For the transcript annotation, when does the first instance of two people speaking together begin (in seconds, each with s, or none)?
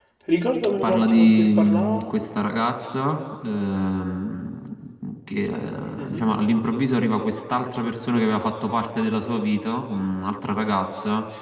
0.8 s